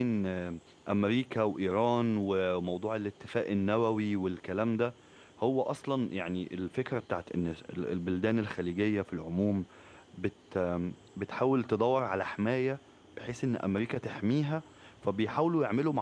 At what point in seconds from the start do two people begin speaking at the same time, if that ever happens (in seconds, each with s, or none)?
none